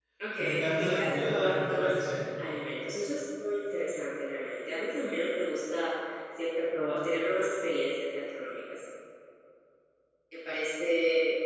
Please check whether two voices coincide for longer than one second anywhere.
Yes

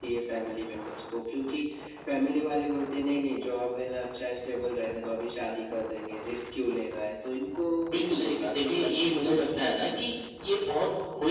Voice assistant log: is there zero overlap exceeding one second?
No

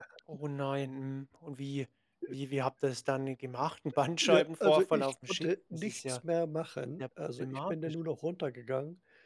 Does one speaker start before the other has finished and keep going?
Yes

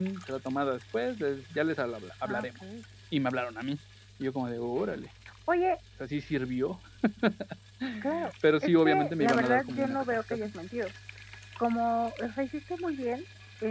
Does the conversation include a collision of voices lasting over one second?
Yes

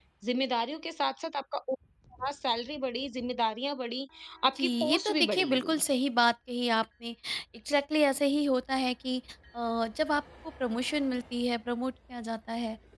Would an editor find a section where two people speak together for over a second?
Yes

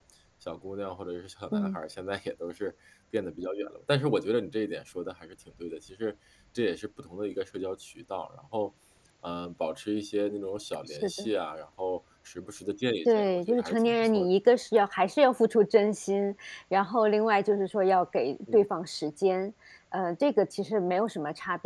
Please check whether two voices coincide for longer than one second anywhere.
Yes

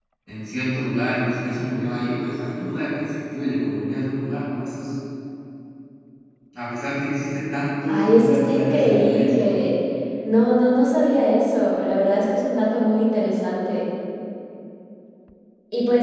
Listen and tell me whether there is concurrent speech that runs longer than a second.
Yes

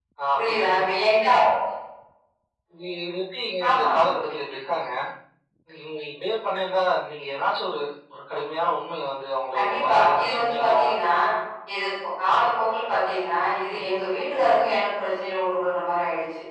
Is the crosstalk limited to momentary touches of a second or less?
No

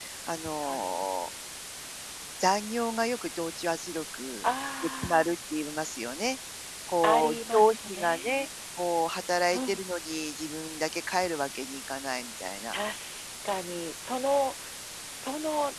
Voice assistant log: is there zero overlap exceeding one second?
No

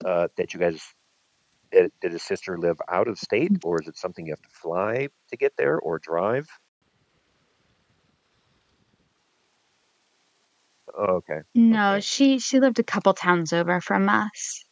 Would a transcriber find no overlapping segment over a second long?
Yes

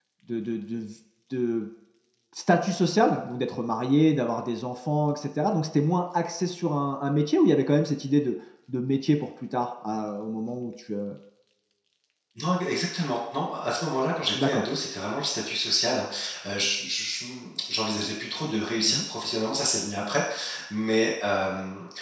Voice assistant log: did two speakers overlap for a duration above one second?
No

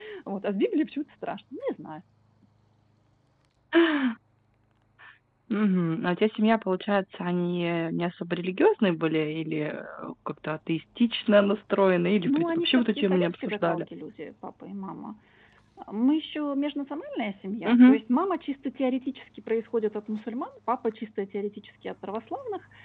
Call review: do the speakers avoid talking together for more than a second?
No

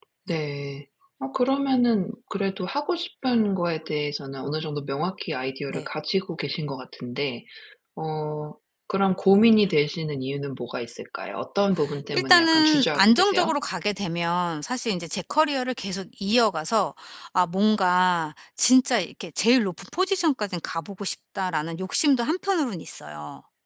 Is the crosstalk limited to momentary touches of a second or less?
No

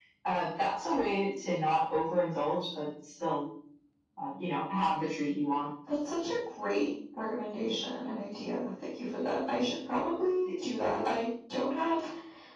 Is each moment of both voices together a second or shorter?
Yes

